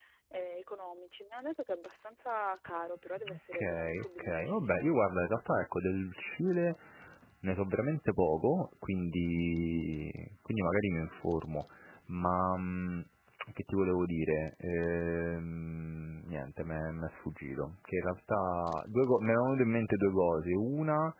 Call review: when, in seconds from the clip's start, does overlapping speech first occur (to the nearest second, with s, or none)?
3 s